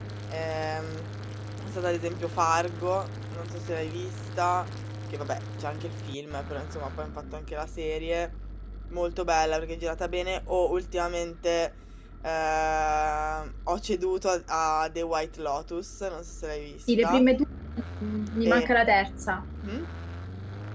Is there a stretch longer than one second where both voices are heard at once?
No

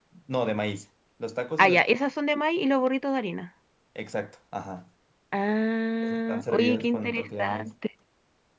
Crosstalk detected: Yes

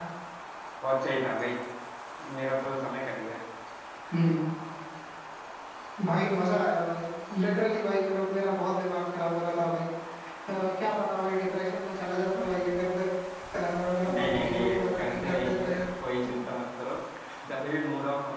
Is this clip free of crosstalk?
No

